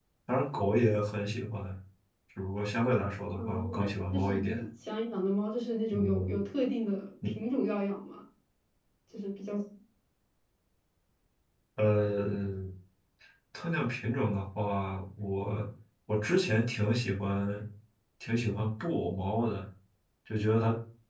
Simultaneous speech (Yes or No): Yes